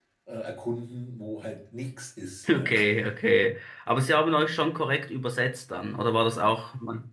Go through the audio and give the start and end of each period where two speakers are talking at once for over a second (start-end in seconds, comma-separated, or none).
none